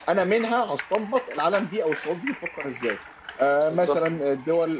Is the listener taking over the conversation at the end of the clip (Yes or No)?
No